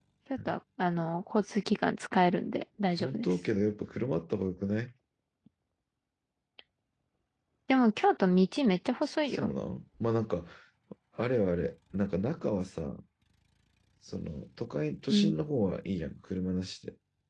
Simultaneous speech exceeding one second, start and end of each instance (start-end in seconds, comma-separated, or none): none